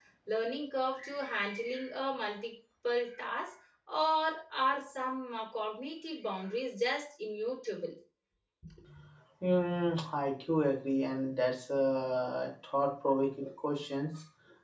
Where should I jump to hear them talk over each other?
none

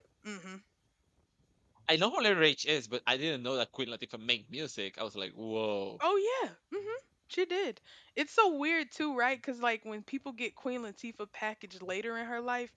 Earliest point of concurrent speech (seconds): none

